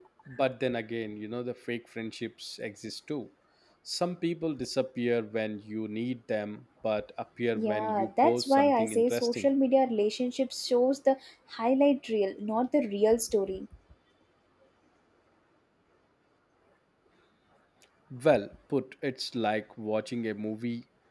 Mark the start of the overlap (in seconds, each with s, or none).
7.5 s